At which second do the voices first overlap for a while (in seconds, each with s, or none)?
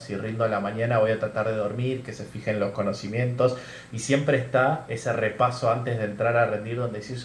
none